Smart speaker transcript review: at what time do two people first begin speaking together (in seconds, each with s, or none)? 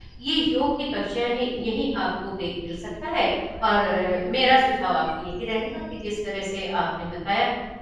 none